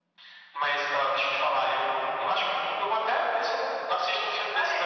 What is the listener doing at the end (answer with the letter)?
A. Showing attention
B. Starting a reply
B